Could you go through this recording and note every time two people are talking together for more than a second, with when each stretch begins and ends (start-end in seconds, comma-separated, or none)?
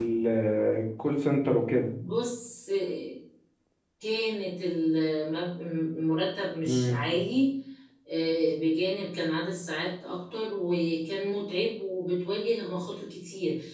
none